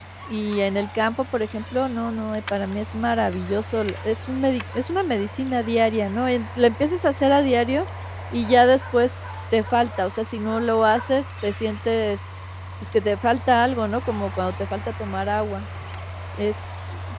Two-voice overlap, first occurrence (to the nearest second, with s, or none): none